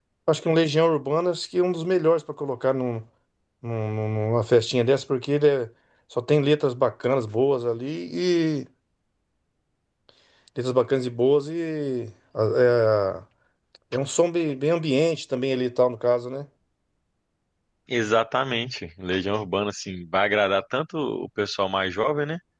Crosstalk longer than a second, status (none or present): none